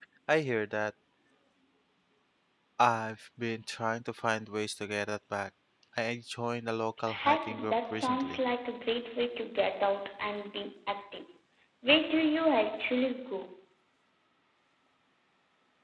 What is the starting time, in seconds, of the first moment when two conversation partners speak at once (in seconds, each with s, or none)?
7.1 s